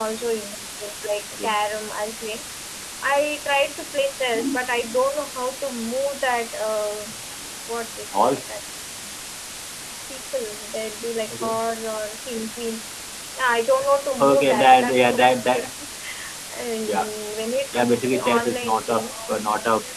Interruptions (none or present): present